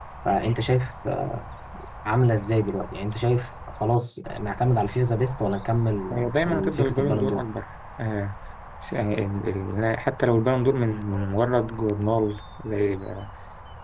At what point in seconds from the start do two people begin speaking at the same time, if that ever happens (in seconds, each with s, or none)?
6.1 s